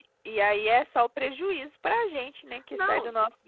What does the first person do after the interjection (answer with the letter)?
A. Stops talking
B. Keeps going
A